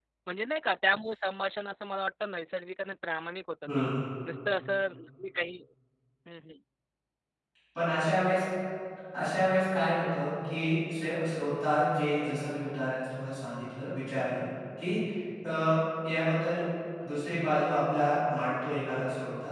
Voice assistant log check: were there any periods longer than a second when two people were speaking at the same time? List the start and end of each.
none

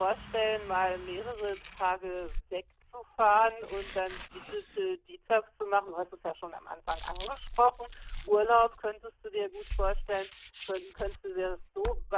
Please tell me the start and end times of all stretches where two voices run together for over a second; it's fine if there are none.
none

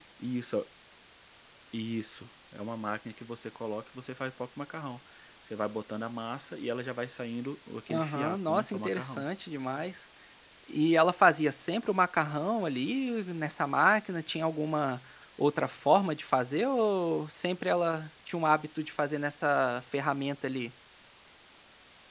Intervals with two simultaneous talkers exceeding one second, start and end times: 7.9-9.2

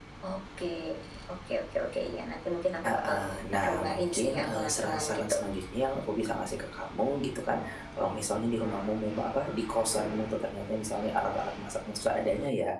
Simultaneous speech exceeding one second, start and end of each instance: 3.6-5.4

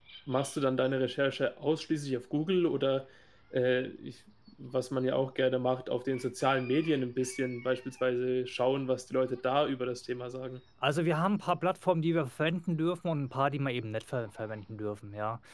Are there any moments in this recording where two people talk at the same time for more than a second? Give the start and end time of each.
none

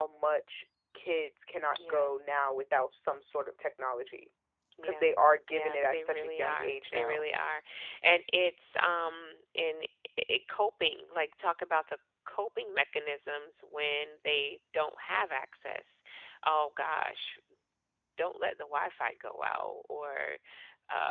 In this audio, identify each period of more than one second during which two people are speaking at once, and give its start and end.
5.5-7.3

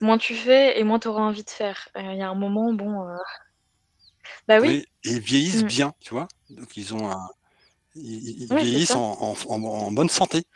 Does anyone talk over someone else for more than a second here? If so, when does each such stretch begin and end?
none

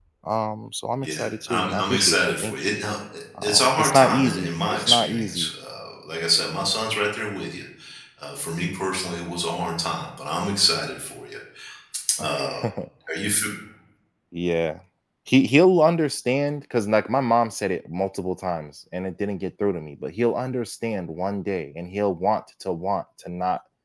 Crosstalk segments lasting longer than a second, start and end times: 1.0-2.5, 3.4-5.5

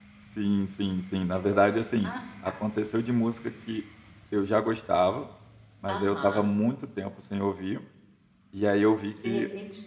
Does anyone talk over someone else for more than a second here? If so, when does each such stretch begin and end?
none

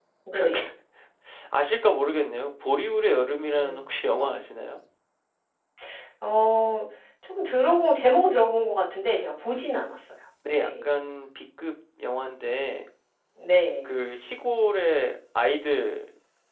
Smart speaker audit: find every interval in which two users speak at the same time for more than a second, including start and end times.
none

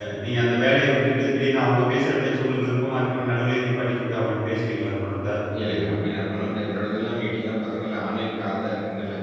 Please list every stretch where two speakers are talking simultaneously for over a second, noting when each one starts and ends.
none

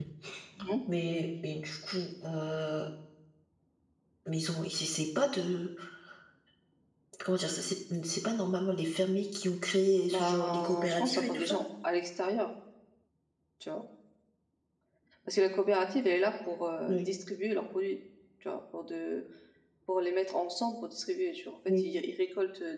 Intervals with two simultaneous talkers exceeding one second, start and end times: 10.1-11.6

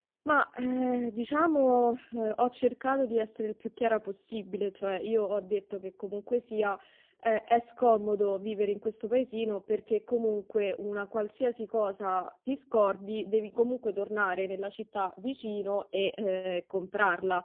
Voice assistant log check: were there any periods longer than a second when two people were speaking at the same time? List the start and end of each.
none

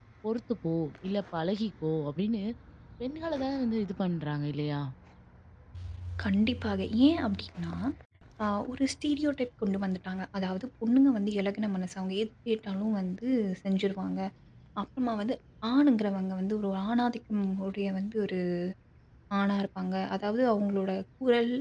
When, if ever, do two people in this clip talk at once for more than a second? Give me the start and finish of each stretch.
none

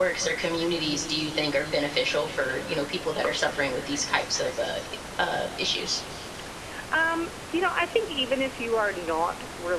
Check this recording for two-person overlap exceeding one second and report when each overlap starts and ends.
none

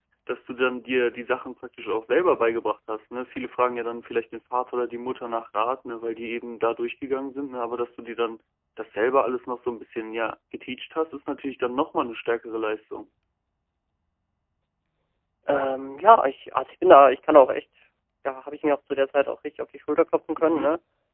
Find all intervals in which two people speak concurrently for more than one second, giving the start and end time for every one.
none

